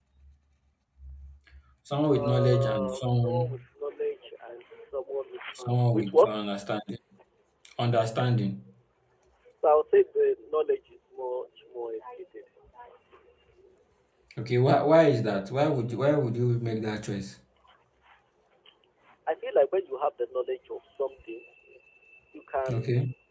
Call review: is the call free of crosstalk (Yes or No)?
No